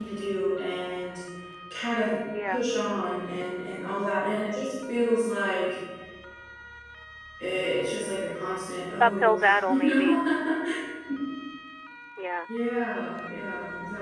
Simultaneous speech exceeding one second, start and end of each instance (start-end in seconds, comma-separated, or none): 9.0-10.2